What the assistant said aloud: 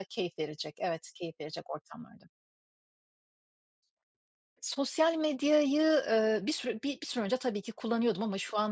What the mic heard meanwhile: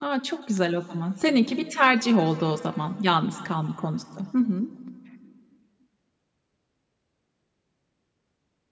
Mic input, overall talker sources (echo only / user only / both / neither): user only